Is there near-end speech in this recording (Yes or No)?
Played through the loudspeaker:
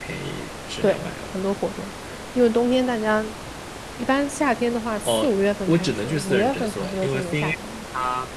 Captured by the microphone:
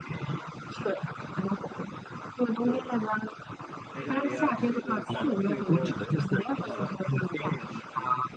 Yes